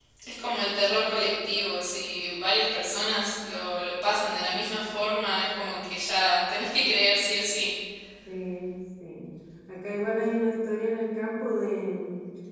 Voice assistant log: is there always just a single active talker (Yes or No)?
Yes